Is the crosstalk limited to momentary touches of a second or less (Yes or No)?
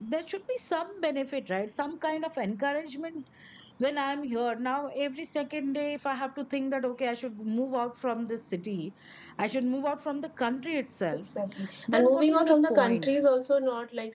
No